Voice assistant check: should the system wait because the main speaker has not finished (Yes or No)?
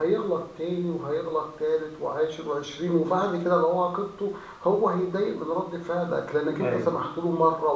Yes